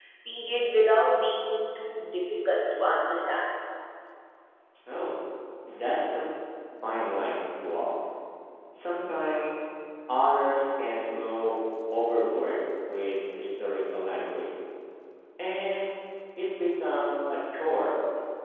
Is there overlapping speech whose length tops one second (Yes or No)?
No